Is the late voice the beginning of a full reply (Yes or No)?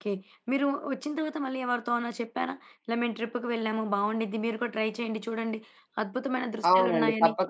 Yes